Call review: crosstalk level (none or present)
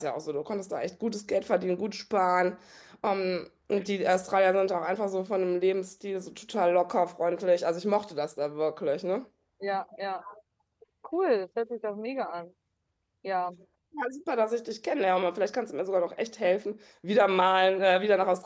none